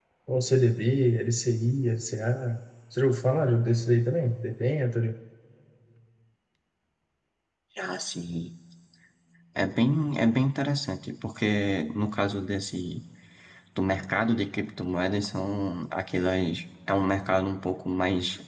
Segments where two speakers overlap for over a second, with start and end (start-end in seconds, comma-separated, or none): none